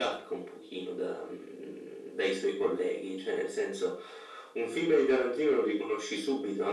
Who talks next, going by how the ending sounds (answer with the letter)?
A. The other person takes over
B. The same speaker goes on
B